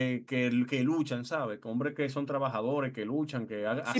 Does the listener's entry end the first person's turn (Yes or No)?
Yes